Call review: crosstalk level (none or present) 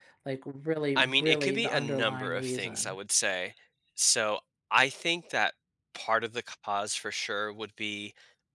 present